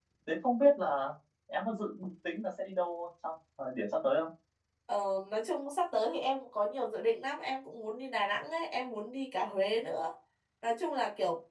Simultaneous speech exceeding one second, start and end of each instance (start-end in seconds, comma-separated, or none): none